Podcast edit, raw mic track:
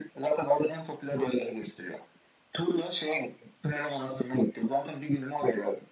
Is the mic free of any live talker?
Yes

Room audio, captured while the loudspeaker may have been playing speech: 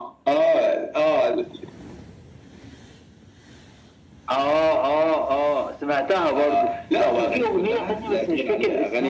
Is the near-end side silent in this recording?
Yes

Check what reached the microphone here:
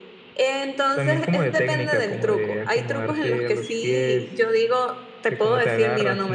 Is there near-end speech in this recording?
No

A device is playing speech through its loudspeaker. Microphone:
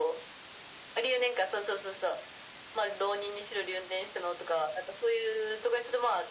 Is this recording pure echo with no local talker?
Yes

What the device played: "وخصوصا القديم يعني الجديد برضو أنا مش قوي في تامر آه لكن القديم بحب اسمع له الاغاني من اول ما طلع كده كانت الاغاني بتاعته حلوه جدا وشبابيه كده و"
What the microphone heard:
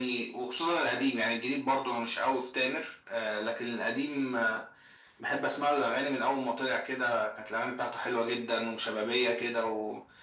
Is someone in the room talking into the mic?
No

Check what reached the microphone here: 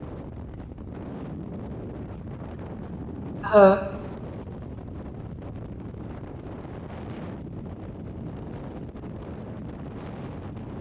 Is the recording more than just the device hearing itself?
Yes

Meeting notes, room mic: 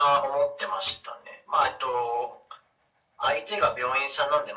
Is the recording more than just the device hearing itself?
No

